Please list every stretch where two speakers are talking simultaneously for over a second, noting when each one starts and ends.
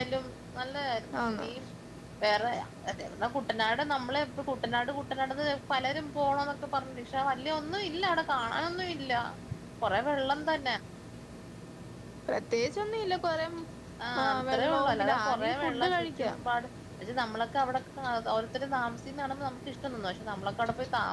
14.2-16.3

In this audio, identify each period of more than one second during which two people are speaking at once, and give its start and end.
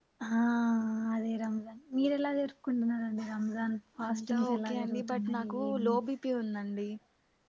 4.0-5.9

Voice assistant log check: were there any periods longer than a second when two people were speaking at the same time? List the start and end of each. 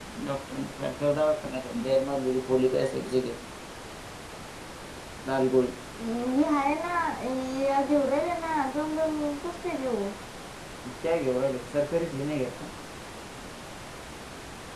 none

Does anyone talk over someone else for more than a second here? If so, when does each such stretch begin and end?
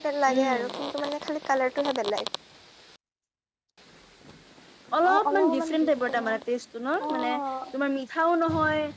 5.1-6.3

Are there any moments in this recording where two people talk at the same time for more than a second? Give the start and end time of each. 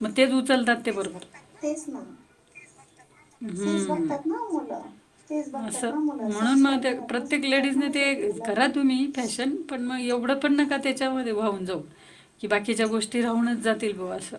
6.3-8.6

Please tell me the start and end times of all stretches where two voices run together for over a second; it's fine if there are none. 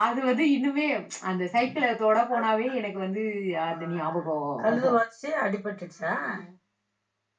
none

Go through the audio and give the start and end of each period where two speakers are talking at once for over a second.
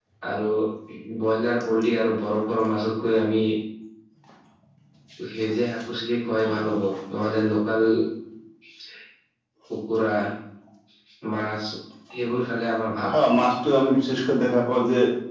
none

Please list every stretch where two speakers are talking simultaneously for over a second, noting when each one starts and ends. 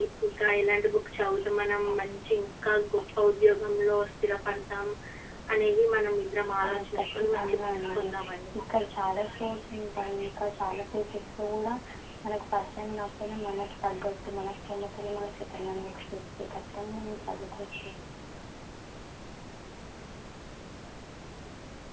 6.7-8.1

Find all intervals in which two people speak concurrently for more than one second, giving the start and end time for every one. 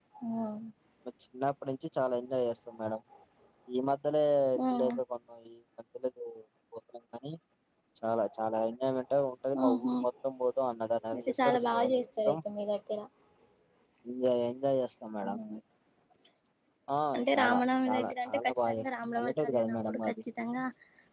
11.1-12.4, 17.4-20.1

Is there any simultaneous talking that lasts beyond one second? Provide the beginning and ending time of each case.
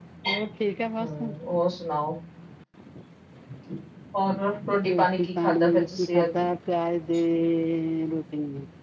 4.9-6.4

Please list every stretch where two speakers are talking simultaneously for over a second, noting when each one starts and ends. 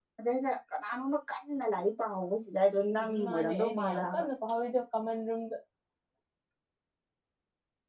3.0-4.2

